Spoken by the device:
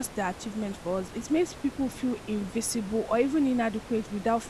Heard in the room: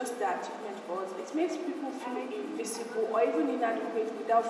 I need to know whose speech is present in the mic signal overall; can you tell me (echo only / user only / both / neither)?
both